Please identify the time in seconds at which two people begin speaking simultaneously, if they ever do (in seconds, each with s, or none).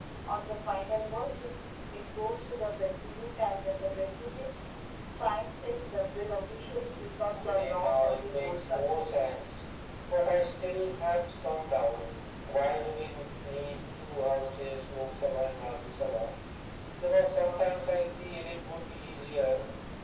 7.3 s